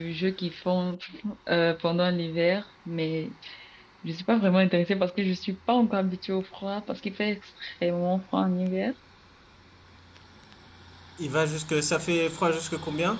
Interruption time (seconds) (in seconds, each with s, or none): none